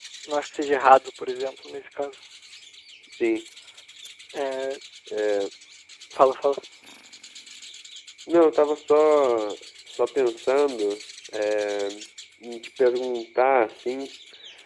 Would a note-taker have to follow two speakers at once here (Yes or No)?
No